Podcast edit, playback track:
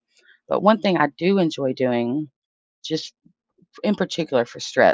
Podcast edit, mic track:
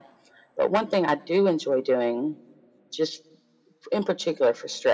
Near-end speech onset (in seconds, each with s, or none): none